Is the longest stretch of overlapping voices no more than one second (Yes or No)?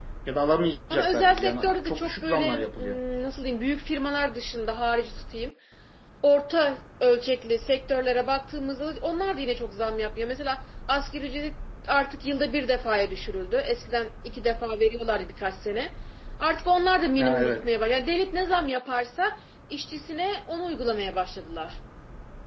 No